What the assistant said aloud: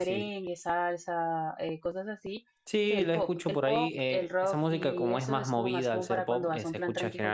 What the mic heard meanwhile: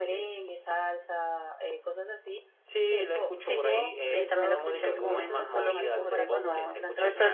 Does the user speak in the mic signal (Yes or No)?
Yes